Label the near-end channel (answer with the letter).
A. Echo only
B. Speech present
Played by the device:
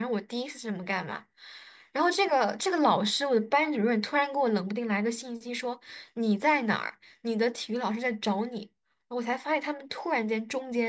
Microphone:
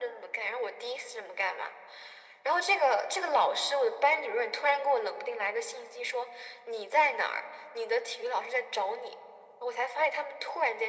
A